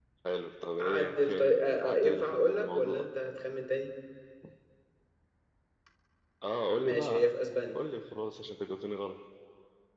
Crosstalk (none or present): present